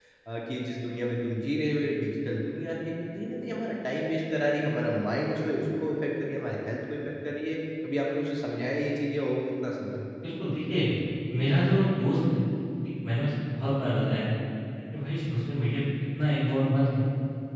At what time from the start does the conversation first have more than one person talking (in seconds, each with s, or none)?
none